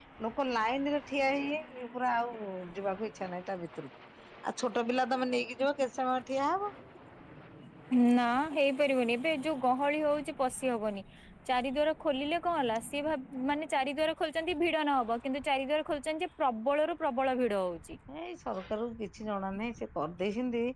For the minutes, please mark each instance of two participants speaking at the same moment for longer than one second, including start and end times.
none

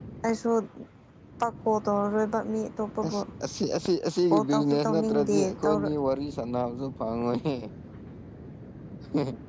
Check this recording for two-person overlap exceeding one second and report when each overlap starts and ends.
4.3-5.9

